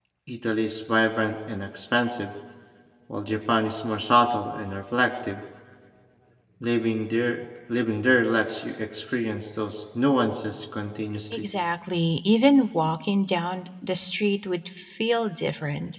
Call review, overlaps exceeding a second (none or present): none